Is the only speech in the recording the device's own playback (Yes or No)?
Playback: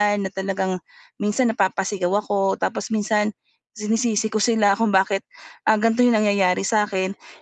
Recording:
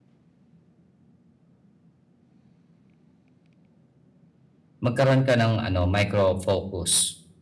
No